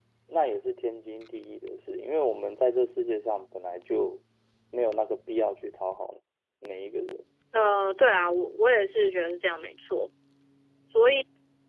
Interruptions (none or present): none